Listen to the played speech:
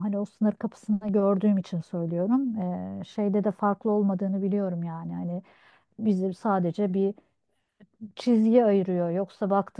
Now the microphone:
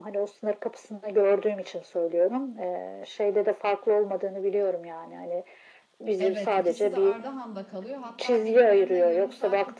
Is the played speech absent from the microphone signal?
No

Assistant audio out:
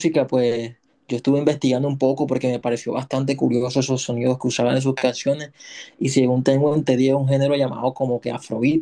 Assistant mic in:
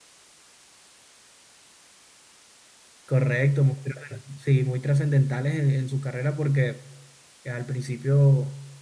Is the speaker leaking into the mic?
No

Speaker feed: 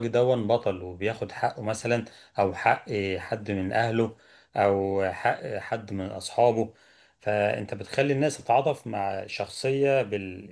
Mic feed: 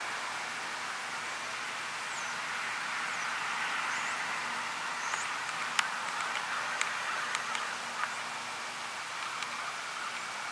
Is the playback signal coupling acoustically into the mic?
No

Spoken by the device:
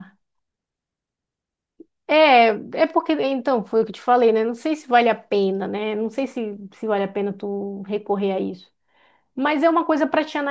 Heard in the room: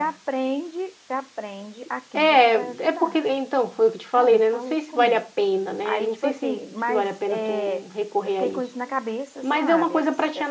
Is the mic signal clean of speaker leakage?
No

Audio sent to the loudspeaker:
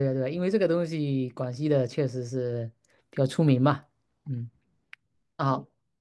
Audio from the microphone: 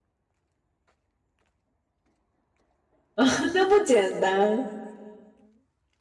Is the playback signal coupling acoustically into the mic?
No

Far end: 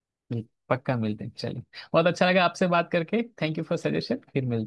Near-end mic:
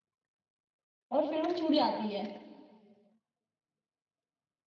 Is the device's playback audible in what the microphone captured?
No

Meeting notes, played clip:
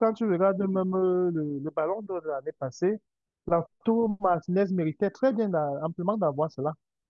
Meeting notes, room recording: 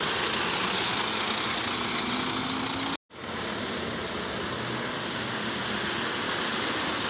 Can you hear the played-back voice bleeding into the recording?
No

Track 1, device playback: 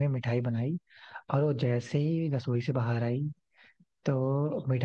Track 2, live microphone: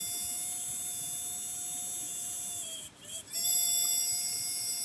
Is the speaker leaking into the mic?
No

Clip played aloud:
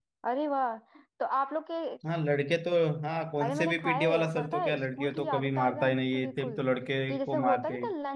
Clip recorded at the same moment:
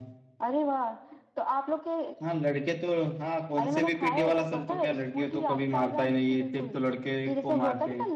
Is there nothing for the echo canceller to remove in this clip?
No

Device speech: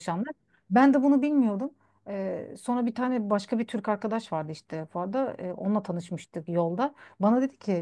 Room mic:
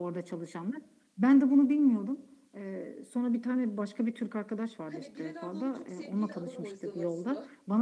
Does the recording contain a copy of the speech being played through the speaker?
Yes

